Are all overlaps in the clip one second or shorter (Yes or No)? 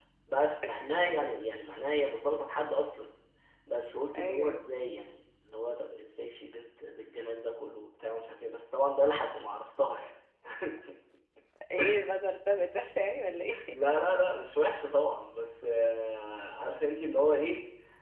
Yes